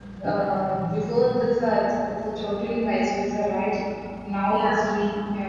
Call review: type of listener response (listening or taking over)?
listening